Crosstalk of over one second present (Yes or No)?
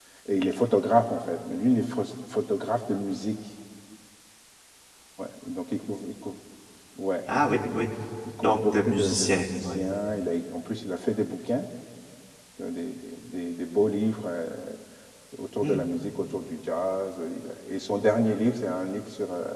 Yes